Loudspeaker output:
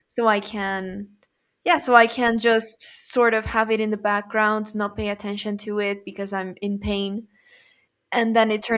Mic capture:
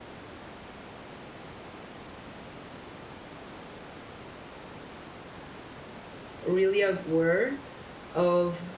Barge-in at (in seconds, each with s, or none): 6.4 s